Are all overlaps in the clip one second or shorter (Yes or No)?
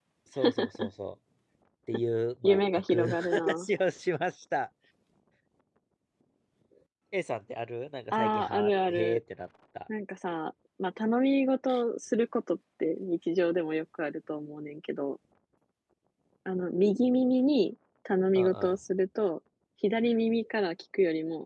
No